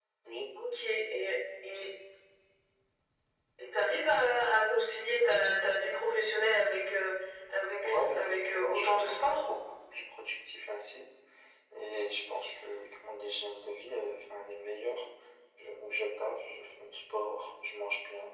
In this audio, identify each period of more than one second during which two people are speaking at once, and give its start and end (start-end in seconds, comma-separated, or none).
7.8-9.4